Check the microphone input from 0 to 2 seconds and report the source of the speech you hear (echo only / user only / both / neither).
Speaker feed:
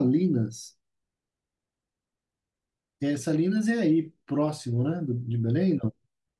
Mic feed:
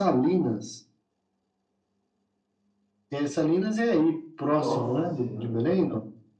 echo only